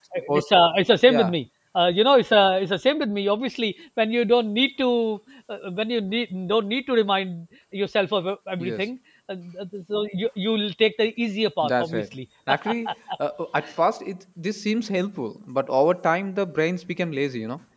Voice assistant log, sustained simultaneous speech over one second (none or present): none